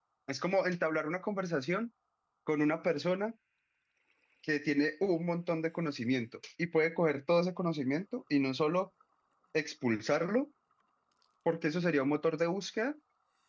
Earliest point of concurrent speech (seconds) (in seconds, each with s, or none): none